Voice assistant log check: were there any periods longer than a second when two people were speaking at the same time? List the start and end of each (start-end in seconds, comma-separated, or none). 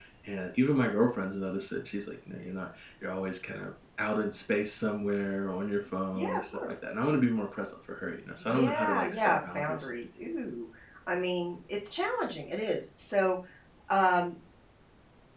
8.4-9.9